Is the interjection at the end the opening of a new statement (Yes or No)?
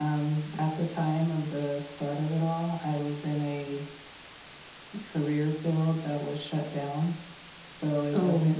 No